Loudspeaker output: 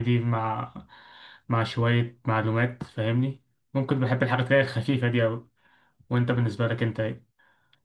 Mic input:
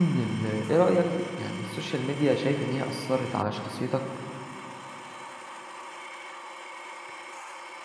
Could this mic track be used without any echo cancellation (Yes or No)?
Yes